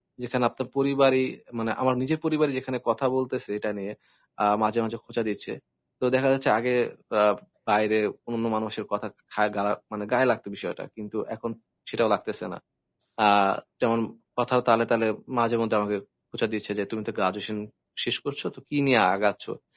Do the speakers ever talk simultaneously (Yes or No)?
No